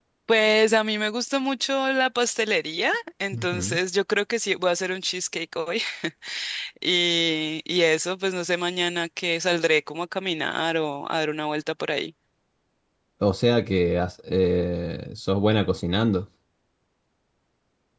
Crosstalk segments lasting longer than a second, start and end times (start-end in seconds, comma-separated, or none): none